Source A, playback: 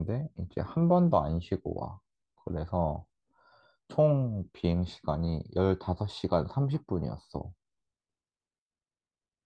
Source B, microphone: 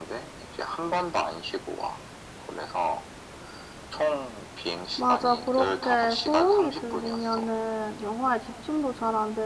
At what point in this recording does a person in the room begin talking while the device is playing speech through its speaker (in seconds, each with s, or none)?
4.9 s